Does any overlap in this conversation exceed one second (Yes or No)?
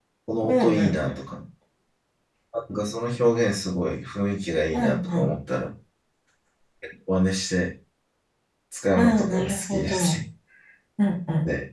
Yes